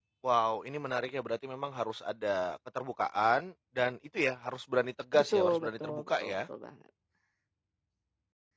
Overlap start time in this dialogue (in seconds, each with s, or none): 5.1 s